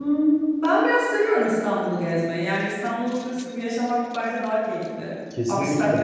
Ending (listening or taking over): listening